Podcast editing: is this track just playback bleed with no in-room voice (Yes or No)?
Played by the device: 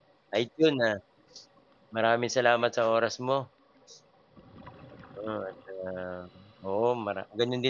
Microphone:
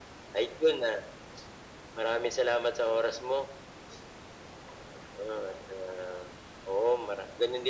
Yes